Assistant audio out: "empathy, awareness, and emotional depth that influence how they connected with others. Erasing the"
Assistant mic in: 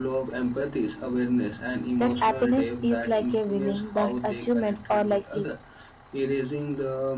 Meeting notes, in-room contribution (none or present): present